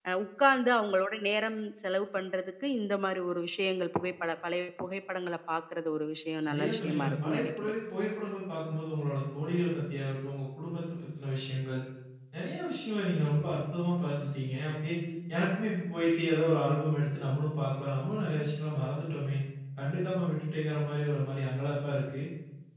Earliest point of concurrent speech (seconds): 6.4 s

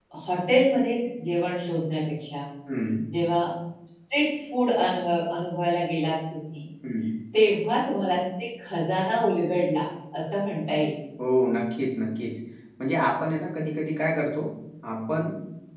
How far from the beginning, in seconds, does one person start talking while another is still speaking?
none

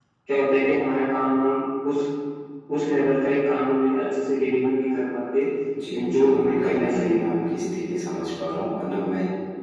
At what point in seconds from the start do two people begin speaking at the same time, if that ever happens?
6.0 s

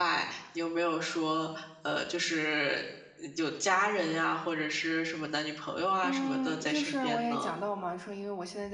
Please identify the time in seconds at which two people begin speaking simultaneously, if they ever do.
6.0 s

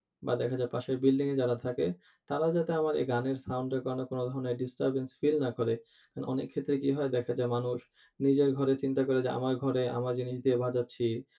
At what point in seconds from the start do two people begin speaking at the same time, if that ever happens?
none

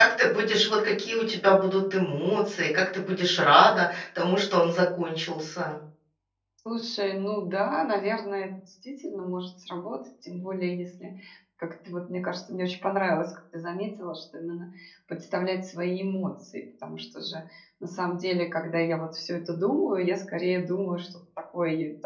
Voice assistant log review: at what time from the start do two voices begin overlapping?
none

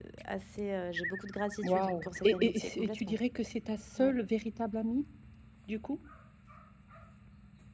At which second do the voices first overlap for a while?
1.6 s

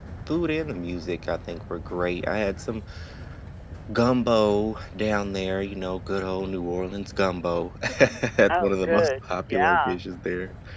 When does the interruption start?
8.5 s

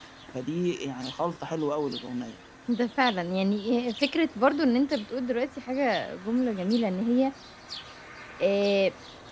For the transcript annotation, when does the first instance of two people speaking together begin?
none

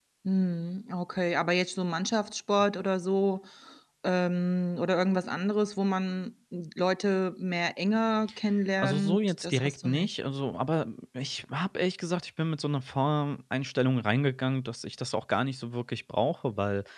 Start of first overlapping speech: 8.8 s

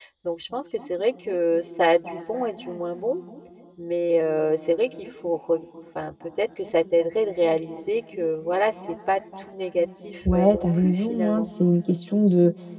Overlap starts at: 10.2 s

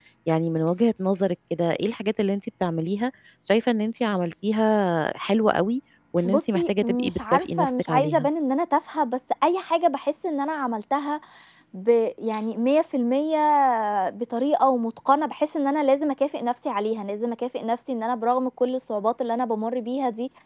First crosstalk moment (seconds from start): 6.2 s

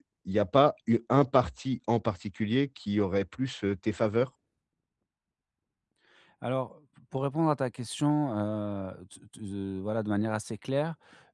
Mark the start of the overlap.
none

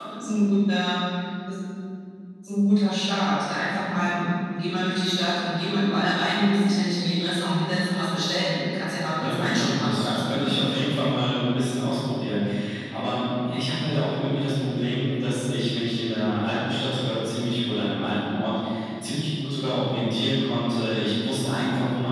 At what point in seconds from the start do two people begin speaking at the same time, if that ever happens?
9.2 s

